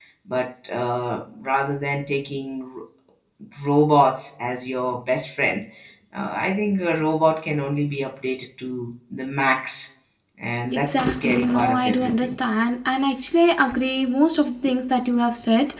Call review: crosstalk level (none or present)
present